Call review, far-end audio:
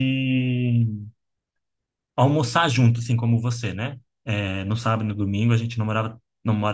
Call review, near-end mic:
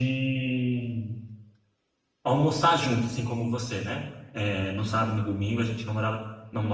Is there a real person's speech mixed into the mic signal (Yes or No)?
No